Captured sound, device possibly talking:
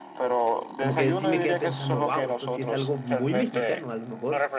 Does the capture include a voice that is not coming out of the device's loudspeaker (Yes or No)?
Yes